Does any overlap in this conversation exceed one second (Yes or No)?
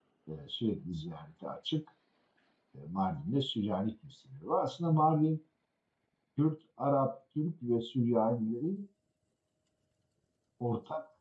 No